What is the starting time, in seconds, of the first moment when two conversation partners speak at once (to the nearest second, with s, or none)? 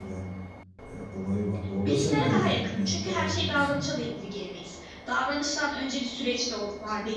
2 s